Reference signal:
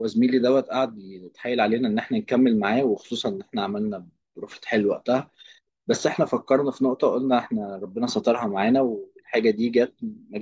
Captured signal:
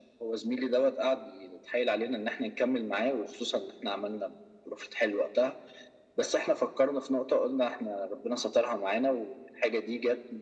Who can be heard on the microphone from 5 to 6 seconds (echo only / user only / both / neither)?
echo only